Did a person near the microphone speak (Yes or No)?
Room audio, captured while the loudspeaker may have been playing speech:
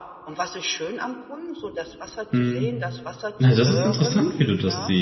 Yes